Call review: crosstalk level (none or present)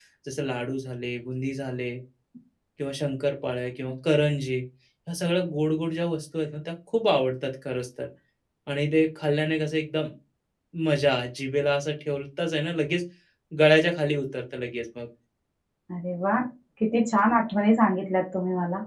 none